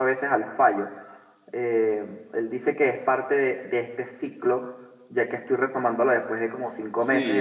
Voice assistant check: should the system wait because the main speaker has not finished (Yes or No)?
No